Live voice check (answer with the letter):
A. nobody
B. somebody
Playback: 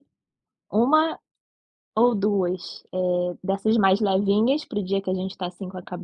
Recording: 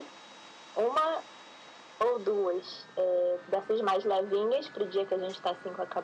A